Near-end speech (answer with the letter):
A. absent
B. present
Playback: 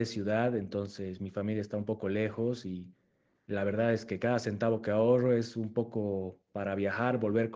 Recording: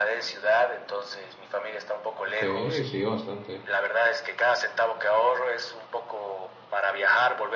B